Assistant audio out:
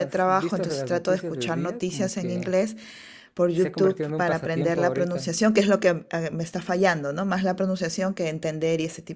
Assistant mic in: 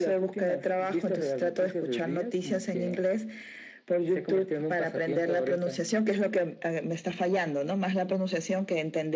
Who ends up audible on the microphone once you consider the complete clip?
echo only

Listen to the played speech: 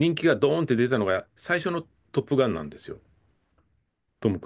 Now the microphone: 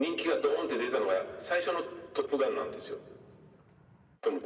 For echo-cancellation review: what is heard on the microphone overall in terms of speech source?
echo only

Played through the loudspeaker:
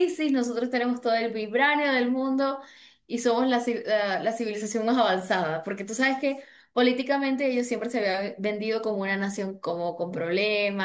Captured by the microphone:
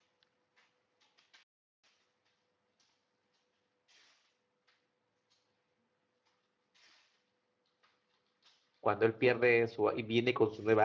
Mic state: user only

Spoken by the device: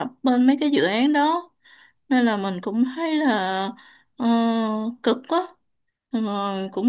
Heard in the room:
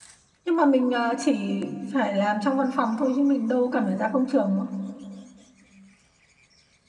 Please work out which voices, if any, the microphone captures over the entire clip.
user only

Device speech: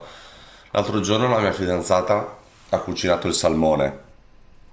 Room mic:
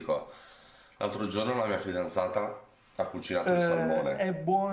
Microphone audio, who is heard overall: both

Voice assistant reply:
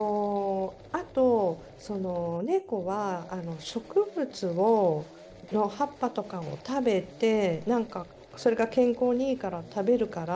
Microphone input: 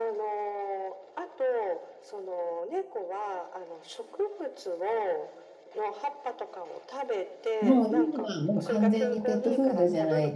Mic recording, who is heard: both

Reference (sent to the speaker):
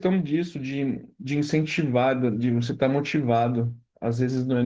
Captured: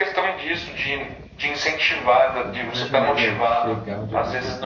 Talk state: both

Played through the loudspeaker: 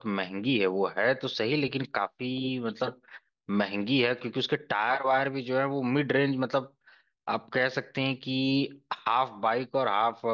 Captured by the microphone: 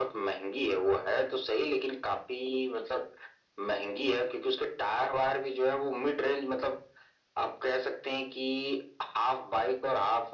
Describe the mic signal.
echo only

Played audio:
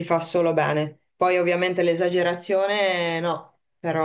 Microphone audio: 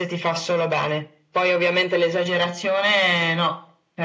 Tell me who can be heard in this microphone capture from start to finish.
echo only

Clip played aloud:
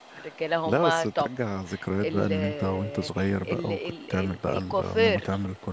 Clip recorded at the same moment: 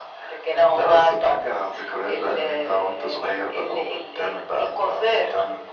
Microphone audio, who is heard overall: echo only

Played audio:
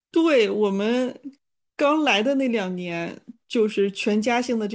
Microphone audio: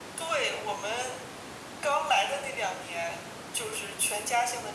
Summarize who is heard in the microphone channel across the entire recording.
echo only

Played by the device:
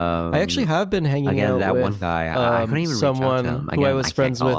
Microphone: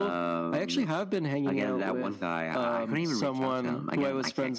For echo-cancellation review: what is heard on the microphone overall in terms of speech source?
echo only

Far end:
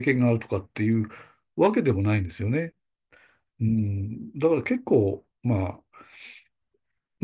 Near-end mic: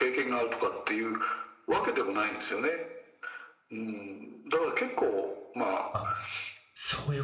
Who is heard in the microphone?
both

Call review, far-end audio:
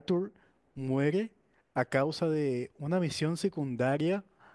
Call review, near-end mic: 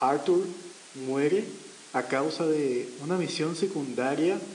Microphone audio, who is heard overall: echo only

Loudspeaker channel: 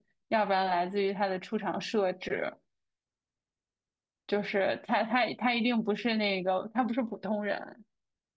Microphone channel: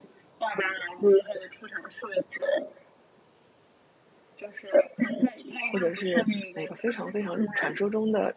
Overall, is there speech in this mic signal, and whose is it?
both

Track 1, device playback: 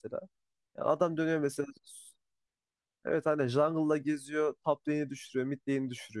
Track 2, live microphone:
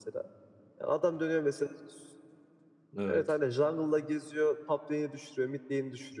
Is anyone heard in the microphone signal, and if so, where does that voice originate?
both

